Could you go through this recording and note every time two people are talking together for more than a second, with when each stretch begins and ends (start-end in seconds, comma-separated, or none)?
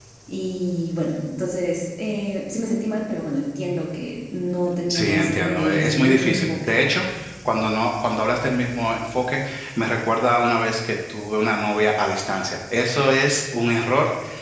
4.9-6.7